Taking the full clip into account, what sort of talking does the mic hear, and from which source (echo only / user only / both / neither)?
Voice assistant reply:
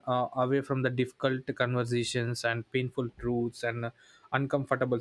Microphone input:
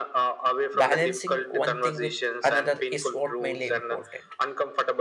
both